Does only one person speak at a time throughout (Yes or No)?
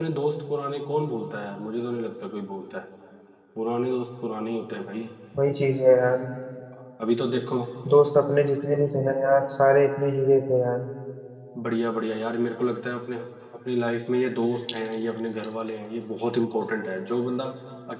Yes